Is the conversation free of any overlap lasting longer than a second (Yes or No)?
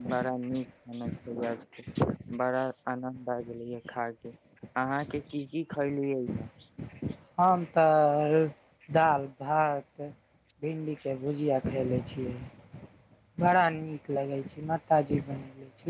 Yes